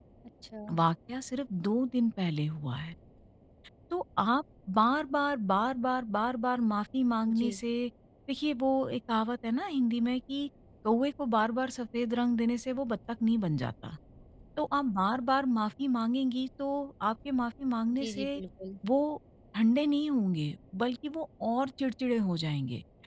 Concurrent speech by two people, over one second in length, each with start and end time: none

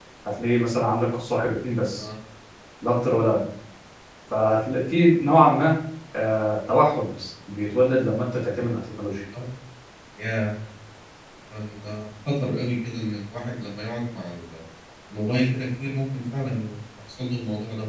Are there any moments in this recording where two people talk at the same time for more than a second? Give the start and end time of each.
none

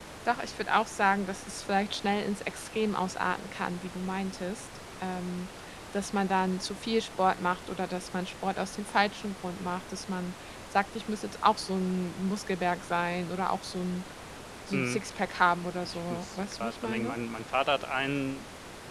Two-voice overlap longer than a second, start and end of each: 15.8-17.1

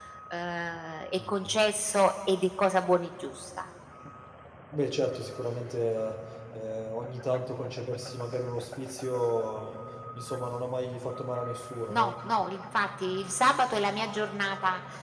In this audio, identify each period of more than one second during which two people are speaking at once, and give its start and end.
none

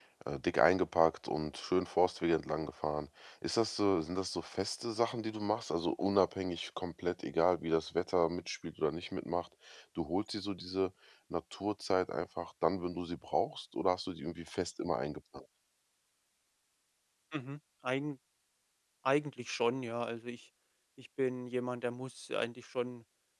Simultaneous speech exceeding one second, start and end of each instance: none

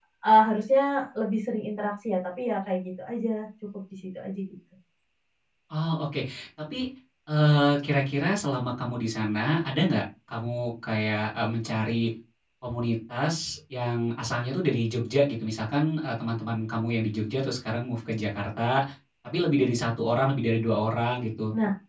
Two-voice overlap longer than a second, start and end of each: none

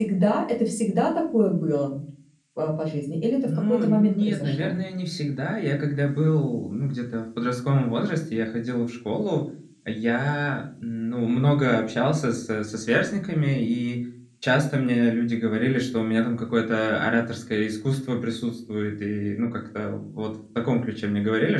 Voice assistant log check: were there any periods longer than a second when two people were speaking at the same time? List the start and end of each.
3.5-4.7

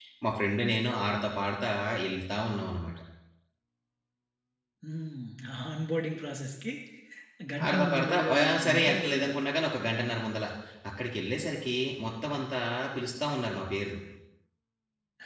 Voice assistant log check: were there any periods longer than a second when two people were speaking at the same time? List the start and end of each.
7.7-9.4

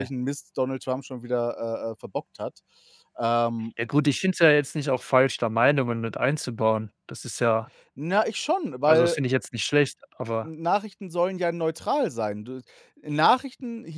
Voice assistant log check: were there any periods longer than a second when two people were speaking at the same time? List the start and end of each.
none

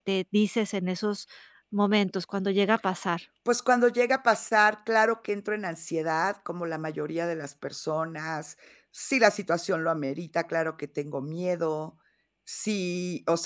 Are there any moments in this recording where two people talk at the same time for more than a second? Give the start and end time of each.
none

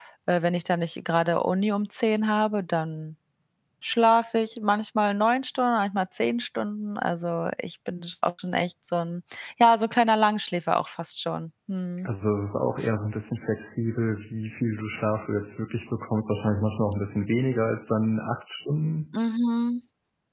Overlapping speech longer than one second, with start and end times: none

